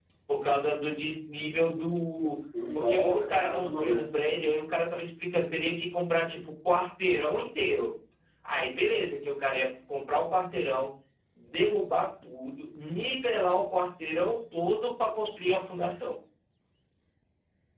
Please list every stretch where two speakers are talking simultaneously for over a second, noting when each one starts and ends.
2.7-4.0

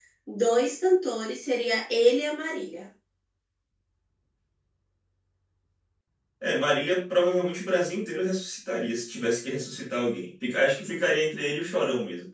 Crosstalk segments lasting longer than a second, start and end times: none

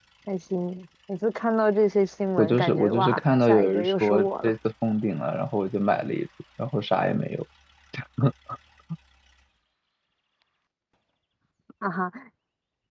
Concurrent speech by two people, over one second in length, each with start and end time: 2.4-4.5

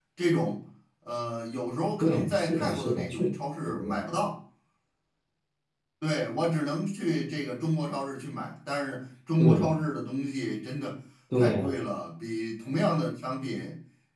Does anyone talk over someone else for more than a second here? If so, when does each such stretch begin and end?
2.0-3.3

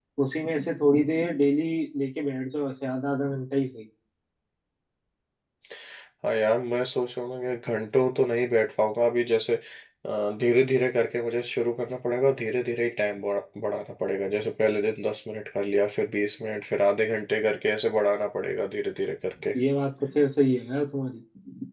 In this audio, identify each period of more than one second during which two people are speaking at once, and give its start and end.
none

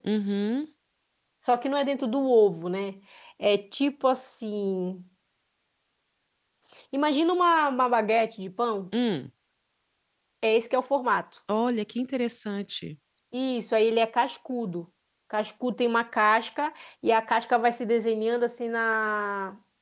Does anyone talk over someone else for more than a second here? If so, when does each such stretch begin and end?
none

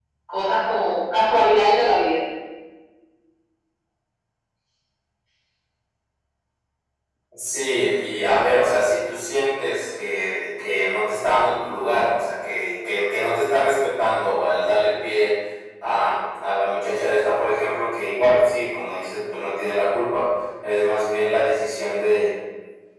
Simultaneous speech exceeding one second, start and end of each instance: none

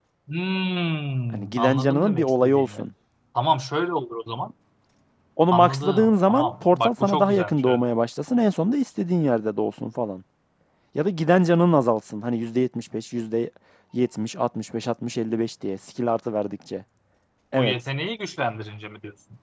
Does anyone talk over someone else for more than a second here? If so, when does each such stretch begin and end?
1.3-2.8, 5.5-7.8

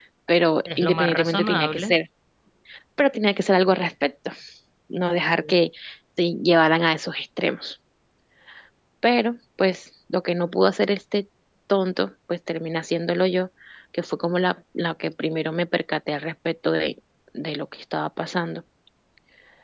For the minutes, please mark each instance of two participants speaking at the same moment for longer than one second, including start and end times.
0.7-1.9

